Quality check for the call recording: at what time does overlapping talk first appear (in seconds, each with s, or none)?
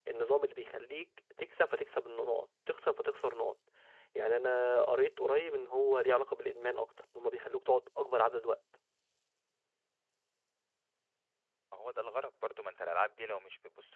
none